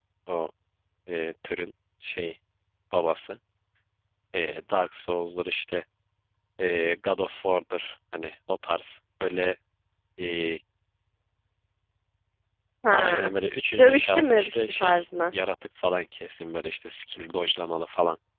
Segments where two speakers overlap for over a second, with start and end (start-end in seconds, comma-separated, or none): 13.8-15.1